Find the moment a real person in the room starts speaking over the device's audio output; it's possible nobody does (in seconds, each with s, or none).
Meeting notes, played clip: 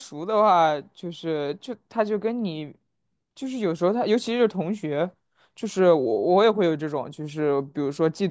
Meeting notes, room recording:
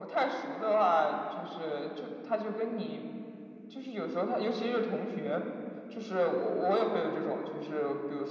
none